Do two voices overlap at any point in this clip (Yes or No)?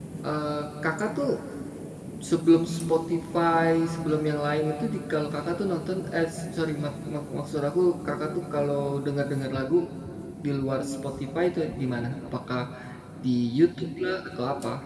No